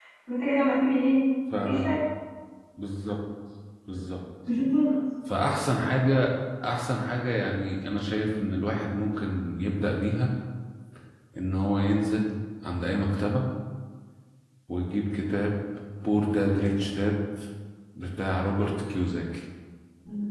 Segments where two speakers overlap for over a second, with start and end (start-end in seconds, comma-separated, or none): none